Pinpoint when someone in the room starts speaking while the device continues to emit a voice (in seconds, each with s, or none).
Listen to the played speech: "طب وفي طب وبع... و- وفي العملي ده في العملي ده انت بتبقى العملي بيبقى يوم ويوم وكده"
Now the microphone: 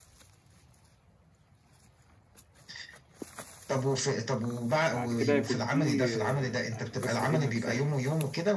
4.9 s